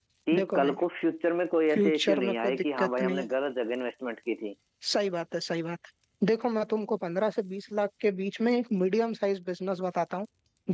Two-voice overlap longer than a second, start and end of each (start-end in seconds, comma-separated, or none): 1.7-3.3